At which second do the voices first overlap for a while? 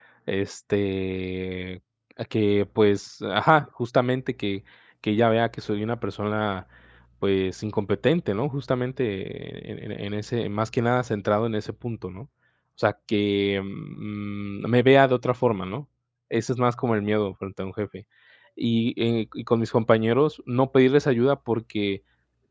none

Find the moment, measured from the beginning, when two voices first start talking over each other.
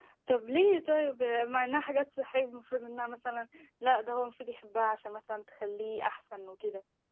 none

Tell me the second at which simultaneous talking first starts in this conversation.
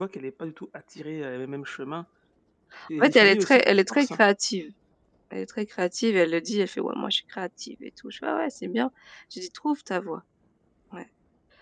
3.0 s

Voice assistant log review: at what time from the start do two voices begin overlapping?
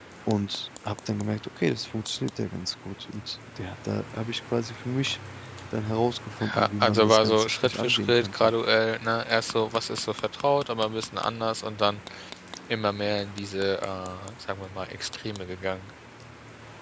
6.6 s

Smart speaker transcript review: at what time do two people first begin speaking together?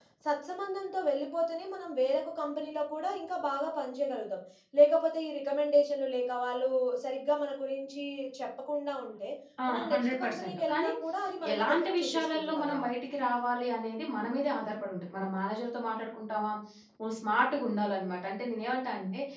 9.7 s

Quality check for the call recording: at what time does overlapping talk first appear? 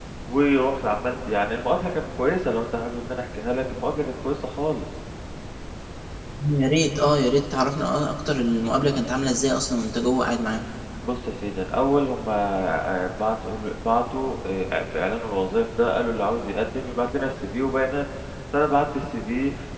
none

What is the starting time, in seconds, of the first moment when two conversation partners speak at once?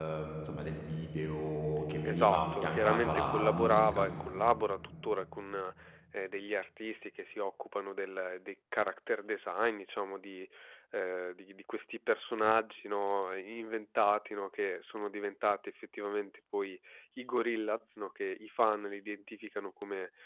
2.0 s

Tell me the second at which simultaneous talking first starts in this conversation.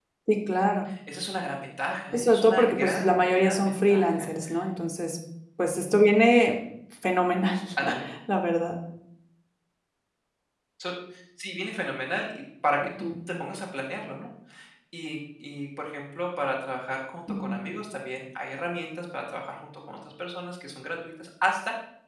2.1 s

